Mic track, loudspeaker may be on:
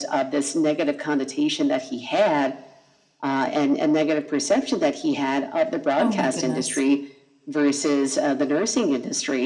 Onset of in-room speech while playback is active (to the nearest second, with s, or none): 6 s